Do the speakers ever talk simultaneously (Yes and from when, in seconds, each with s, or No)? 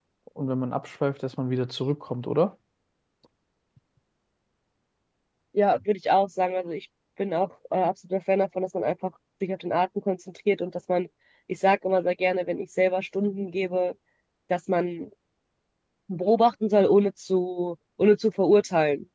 No